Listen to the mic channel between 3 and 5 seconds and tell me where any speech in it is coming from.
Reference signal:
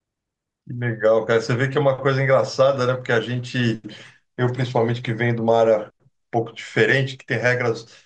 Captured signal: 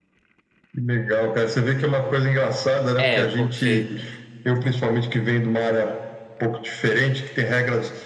both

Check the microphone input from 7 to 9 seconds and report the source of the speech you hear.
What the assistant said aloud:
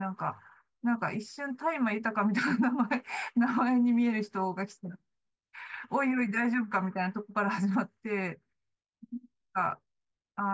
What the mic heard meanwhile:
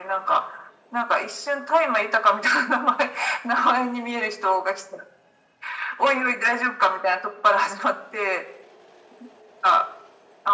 echo only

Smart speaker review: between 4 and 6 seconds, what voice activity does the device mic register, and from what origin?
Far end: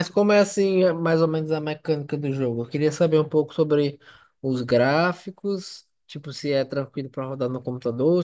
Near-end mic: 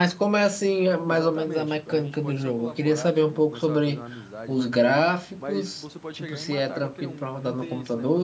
both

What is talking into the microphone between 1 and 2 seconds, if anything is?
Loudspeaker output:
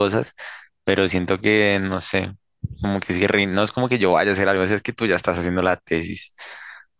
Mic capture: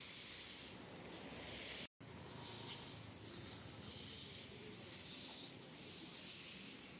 neither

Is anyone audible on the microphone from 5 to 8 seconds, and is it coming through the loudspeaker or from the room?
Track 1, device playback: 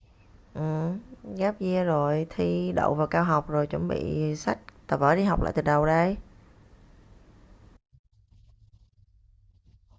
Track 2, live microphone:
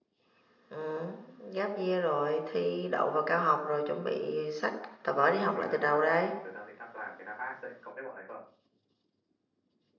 both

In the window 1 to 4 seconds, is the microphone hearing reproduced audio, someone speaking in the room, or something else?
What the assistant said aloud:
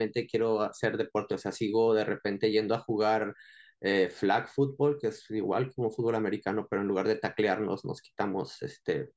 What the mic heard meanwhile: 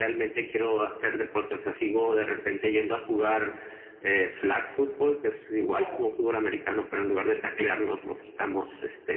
echo only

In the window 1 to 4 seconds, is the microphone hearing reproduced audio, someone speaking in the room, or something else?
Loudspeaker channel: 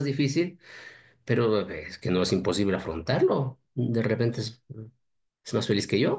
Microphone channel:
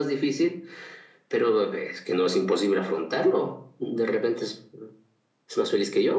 echo only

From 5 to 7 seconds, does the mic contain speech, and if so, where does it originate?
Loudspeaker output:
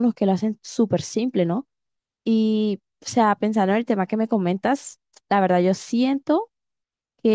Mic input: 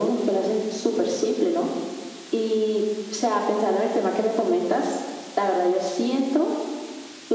echo only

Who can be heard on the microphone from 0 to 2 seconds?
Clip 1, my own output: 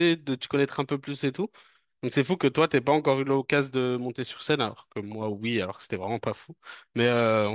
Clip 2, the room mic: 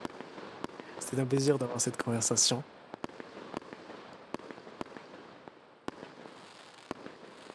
user only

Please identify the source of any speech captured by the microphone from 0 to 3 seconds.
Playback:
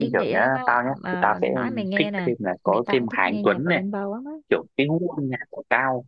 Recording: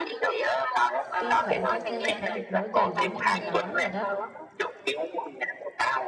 both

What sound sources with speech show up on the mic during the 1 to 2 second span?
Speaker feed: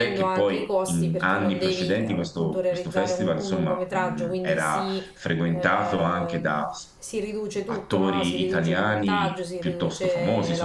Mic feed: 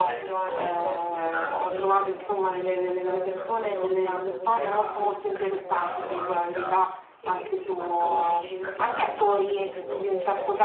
both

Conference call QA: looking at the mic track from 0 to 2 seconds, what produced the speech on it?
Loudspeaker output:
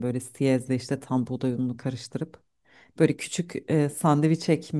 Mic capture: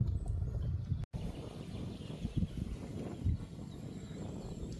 neither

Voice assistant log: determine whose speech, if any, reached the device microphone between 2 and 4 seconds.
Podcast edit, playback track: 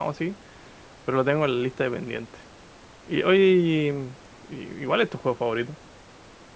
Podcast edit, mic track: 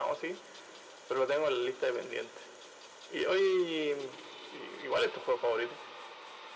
echo only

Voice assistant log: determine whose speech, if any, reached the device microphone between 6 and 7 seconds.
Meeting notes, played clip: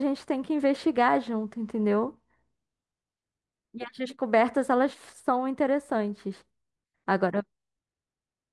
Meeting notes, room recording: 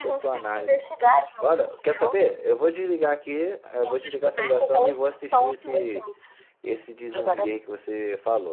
both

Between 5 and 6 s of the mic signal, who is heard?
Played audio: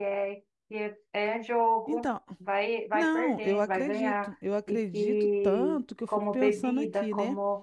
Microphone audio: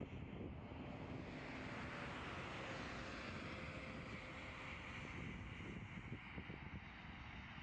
neither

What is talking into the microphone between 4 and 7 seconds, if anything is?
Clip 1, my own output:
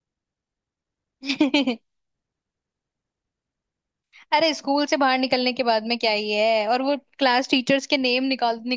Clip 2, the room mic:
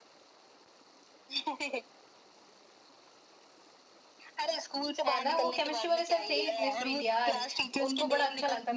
both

